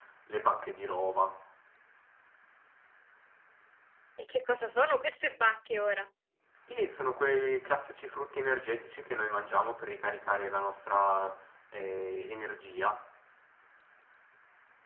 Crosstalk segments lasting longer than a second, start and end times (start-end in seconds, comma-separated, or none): none